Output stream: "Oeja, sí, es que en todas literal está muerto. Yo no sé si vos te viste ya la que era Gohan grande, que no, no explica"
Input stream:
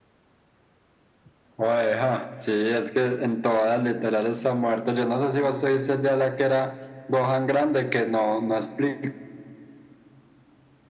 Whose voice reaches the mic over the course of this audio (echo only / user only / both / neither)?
echo only